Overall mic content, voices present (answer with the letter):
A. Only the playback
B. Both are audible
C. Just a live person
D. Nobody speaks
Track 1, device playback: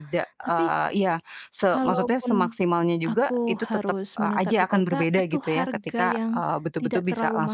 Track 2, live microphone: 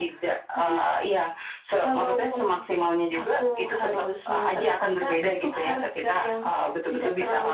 A